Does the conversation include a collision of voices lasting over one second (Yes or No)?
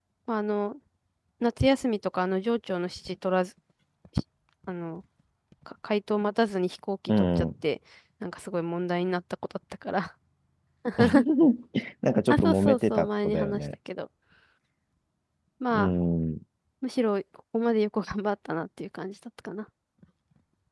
Yes